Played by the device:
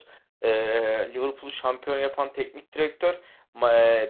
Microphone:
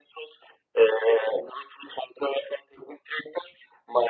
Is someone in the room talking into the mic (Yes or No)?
No